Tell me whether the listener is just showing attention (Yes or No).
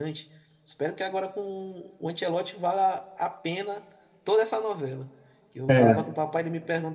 Yes